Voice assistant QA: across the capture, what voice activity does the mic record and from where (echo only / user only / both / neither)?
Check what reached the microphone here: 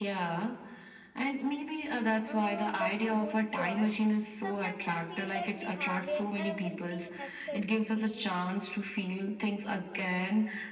both